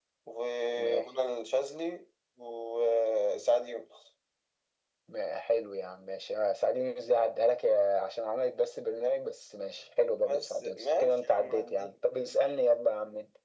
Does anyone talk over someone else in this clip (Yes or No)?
Yes